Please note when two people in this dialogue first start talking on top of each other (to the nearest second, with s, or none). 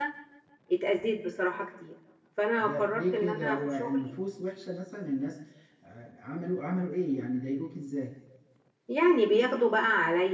3 s